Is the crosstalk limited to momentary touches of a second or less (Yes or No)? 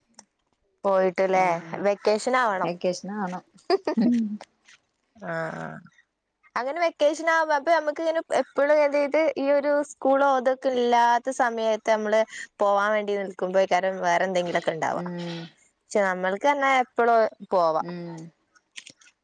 Yes